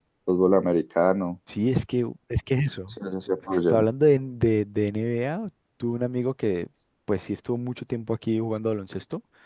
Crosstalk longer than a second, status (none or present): none